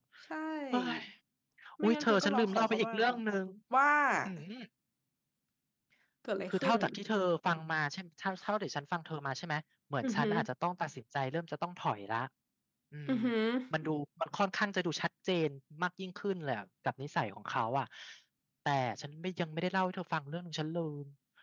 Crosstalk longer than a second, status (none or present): present